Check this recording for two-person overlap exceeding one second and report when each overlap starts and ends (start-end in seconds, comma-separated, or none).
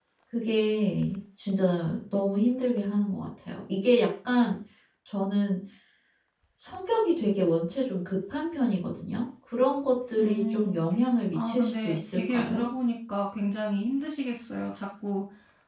11.3-12.7